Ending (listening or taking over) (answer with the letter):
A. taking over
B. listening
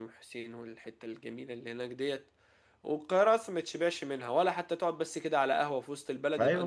A